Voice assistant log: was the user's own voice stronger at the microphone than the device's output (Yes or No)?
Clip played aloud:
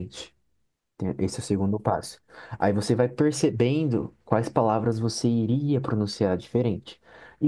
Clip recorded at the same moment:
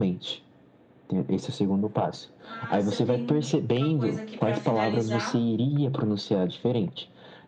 No